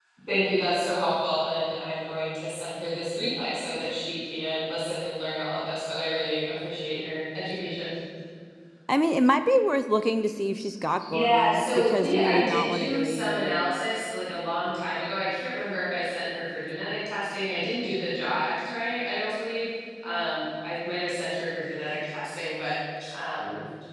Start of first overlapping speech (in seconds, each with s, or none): 11.0 s